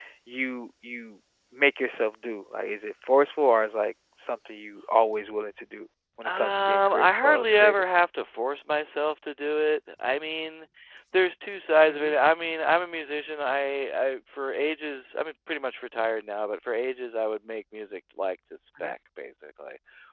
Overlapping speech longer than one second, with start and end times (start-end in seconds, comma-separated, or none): 6.3-7.8